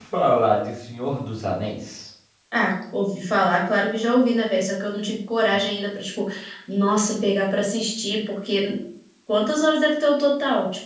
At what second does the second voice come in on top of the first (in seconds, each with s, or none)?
none